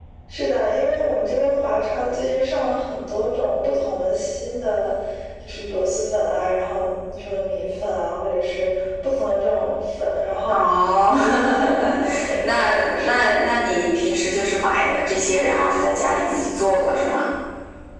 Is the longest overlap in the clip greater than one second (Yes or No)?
Yes